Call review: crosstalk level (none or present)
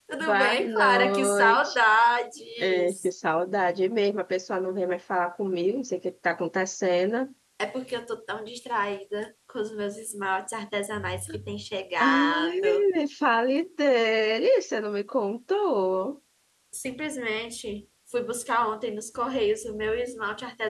present